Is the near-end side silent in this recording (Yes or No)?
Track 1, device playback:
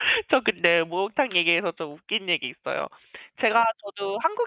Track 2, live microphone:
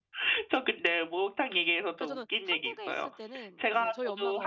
No